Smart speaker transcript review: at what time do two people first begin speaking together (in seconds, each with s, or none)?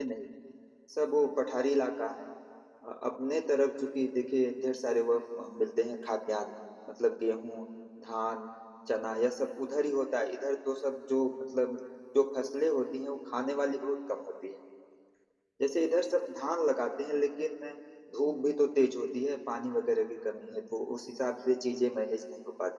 none